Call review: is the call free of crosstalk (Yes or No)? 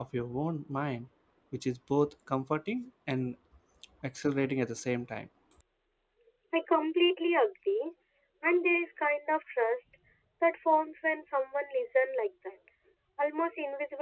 Yes